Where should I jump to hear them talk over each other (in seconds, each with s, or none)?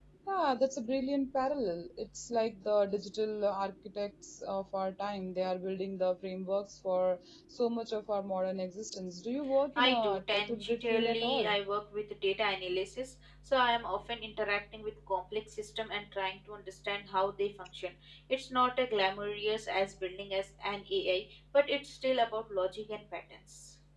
9.8 s